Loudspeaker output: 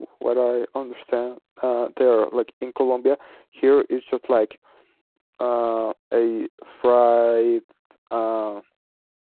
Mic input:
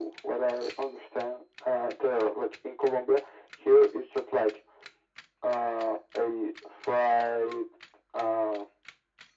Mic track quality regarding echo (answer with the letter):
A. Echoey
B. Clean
A